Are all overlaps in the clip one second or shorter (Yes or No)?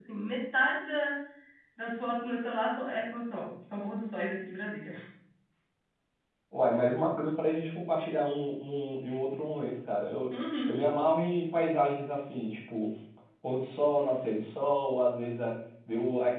Yes